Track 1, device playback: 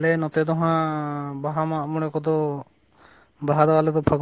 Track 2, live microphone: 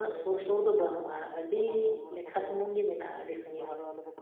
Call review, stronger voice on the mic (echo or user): user